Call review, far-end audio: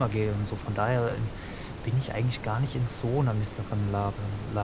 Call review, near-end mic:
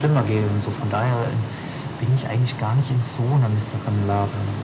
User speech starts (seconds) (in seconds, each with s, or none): none